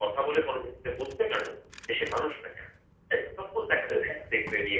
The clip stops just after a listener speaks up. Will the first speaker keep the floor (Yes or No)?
Yes